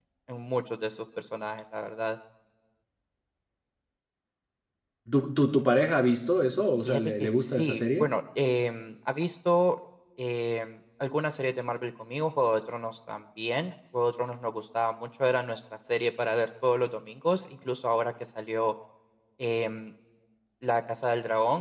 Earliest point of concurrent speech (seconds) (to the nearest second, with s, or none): 7 s